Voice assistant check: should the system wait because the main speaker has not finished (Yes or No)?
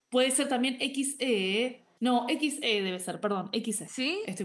No